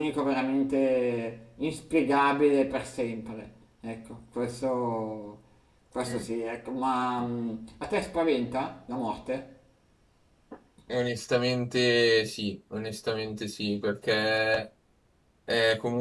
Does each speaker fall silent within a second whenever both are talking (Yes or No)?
Yes